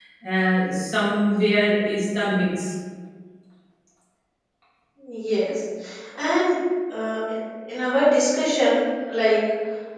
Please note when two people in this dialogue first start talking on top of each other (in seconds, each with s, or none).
none